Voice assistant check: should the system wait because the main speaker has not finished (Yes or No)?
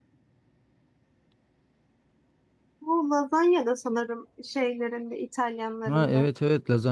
No